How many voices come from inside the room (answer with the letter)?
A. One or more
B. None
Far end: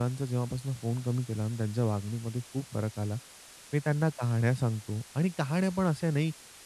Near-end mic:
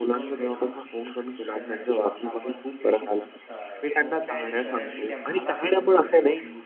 A